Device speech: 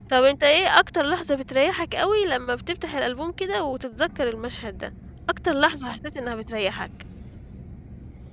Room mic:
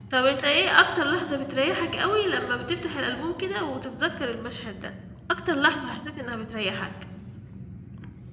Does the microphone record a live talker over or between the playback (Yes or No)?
No